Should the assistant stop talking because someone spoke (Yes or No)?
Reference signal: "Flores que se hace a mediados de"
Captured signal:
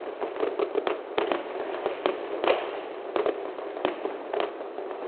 No